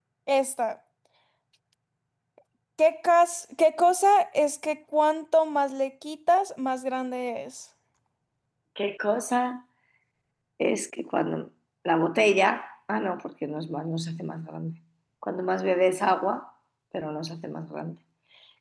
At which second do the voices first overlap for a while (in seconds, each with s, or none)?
none